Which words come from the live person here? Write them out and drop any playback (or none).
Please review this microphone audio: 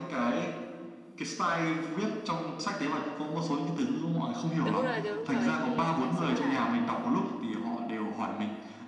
đúng rồi đúng rồi thì đa số là